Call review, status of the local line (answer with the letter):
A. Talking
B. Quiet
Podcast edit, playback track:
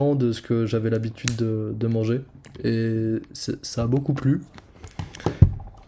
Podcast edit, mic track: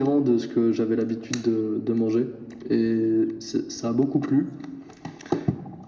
B